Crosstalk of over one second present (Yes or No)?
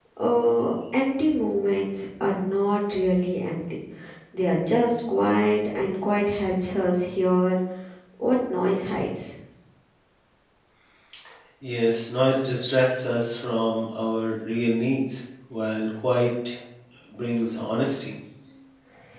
No